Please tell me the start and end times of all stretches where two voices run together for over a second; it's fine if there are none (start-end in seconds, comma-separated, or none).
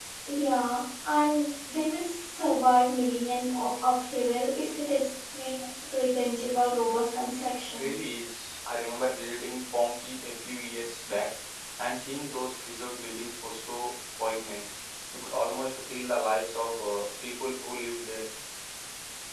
none